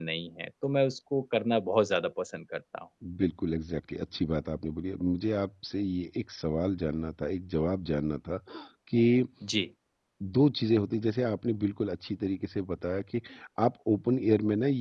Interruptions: none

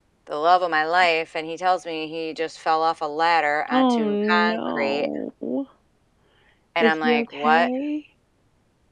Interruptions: present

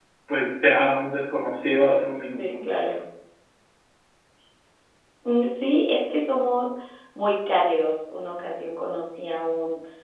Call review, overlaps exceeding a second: none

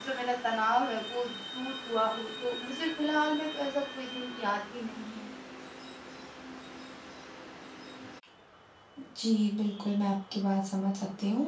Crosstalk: none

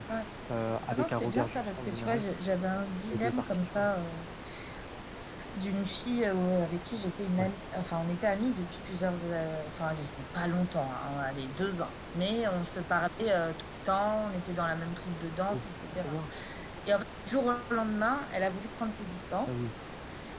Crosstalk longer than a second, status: present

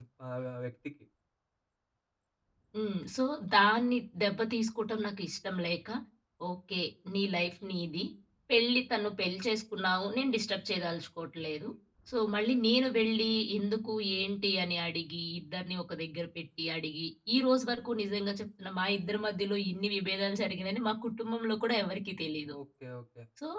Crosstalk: none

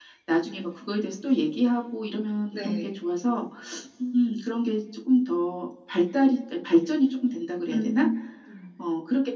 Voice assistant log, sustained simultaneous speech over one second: none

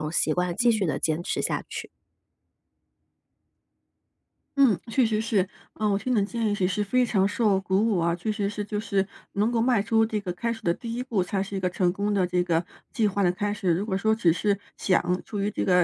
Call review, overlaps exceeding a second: none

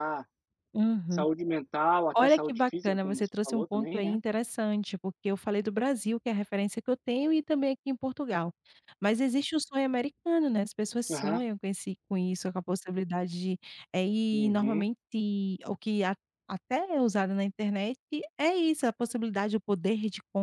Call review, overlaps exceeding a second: present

